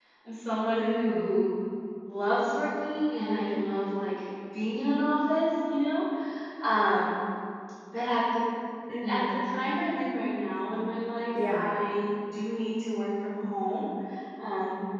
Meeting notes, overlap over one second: none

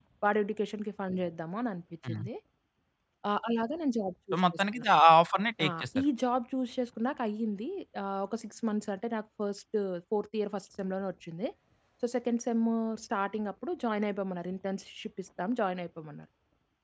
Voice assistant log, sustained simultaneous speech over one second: none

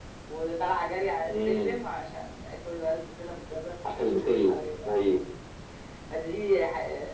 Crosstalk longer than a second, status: none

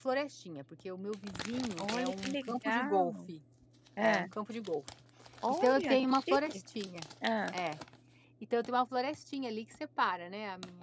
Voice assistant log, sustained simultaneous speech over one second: present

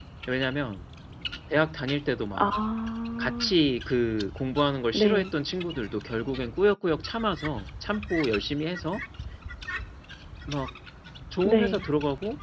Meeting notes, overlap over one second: none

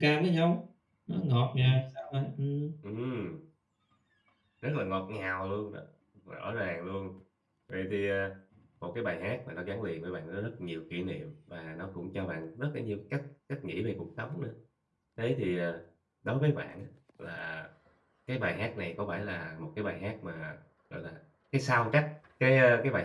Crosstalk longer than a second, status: none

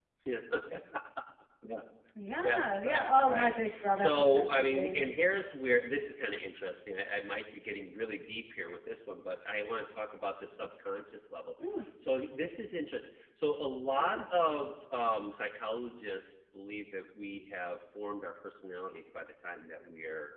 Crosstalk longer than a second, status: present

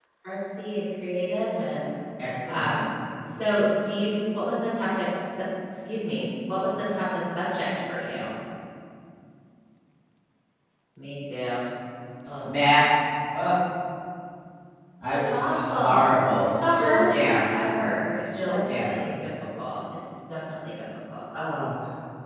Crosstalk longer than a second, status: present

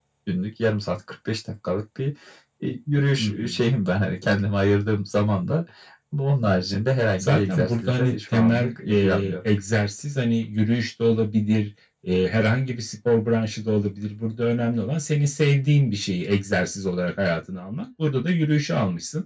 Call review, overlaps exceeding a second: present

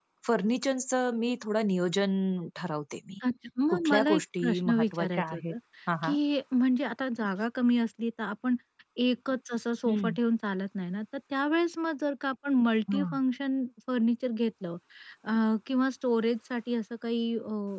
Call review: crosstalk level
present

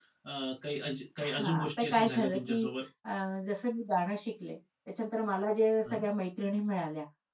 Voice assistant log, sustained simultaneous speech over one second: present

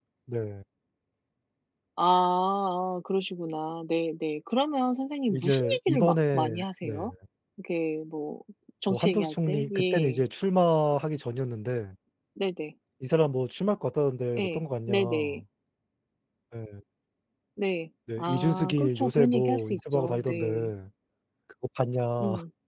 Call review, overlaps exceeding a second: present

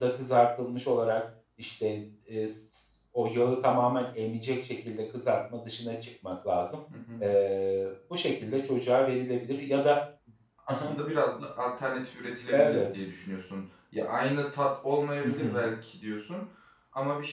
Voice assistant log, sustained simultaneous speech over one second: none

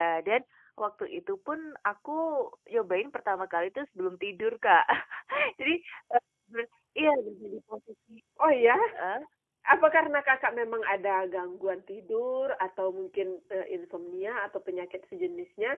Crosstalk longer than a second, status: none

